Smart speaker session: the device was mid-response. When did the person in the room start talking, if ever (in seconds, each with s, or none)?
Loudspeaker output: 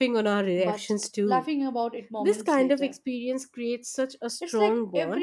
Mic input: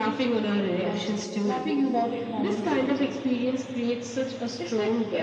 none